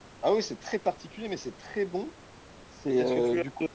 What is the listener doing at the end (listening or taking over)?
taking over